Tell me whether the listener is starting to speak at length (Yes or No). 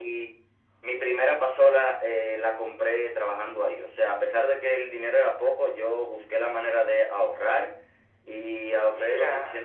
No